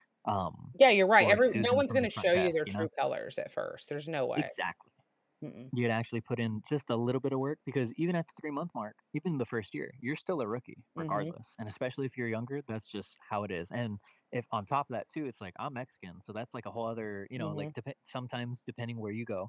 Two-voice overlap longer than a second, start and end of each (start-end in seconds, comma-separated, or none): 1.2-2.9